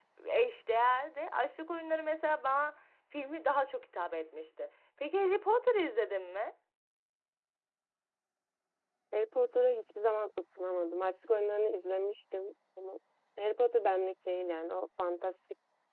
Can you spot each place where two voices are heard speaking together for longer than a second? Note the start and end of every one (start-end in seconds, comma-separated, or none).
none